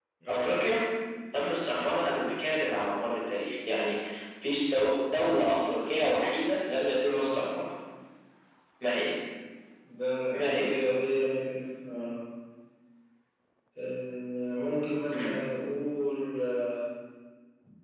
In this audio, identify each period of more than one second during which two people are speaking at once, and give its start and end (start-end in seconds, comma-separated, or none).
none